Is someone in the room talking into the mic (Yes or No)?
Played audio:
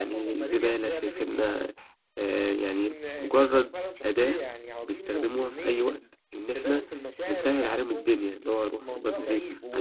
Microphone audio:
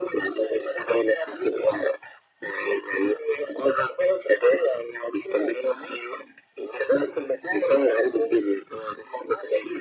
No